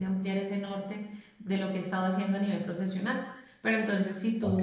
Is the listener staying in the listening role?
Yes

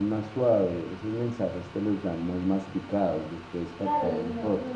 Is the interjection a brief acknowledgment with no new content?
No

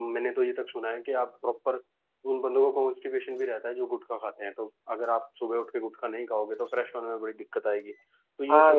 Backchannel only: No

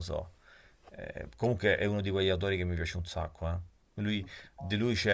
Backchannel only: Yes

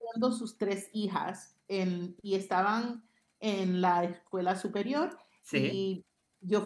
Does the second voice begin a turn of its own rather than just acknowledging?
No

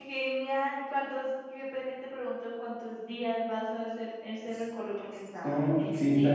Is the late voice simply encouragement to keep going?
No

